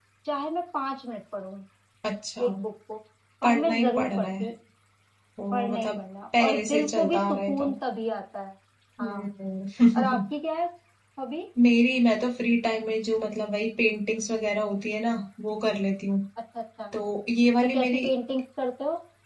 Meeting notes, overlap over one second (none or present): present